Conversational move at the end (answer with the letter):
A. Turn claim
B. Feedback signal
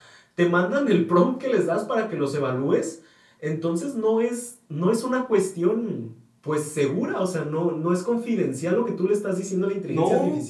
A